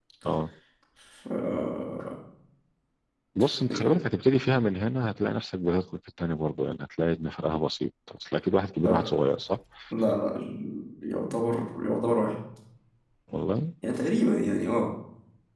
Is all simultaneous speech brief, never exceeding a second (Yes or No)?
Yes